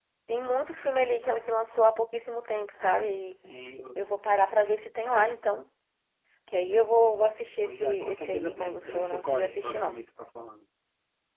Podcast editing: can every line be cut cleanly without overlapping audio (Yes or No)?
No